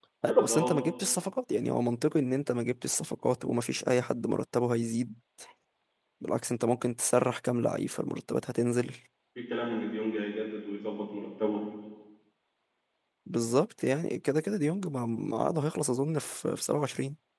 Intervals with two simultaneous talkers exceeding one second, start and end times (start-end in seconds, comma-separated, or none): none